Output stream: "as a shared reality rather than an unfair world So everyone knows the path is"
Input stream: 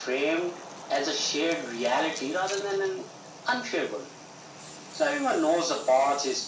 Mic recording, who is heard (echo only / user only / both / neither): echo only